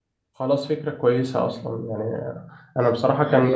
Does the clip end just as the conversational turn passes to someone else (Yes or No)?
No